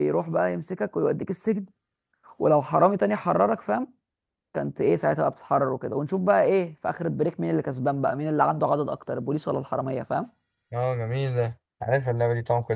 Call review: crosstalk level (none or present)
none